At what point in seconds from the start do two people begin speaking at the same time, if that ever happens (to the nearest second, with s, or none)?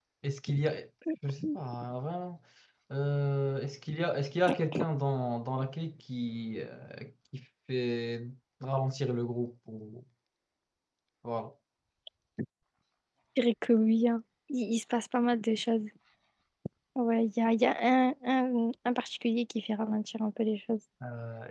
none